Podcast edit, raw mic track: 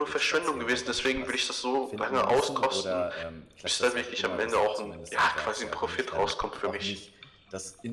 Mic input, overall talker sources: both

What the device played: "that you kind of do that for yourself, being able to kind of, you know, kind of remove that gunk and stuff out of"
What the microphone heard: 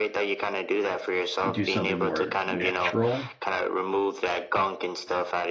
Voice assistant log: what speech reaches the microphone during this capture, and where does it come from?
both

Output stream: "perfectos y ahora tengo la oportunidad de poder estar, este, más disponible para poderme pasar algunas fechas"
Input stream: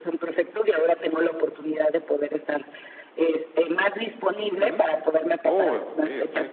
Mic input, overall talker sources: both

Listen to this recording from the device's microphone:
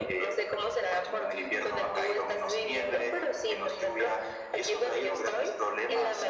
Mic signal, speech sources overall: echo only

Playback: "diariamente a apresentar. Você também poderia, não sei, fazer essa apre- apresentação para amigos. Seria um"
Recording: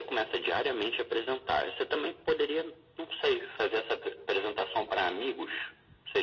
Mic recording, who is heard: echo only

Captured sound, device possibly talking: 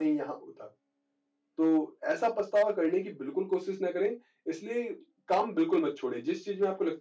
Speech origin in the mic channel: user only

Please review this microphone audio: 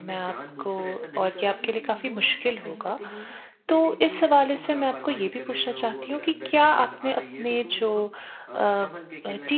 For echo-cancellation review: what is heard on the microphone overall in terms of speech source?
both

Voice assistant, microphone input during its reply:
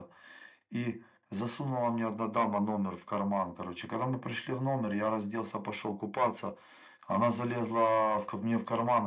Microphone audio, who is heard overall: echo only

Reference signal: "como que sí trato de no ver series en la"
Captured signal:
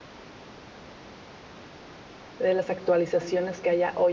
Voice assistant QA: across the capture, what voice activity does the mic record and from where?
user only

